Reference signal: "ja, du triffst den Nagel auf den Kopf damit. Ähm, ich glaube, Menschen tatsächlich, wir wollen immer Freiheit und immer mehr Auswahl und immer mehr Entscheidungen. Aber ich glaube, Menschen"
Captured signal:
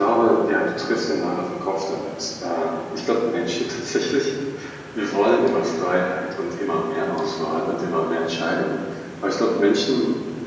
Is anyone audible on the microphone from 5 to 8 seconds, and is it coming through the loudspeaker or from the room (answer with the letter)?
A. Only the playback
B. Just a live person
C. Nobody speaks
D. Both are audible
A